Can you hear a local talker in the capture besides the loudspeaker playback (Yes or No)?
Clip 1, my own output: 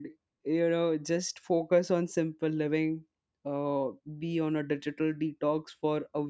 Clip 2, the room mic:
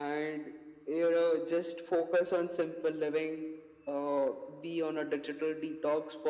No